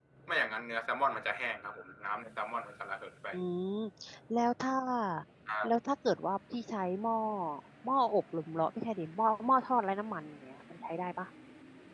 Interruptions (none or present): none